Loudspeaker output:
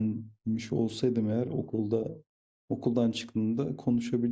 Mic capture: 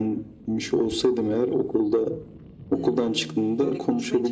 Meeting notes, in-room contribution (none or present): present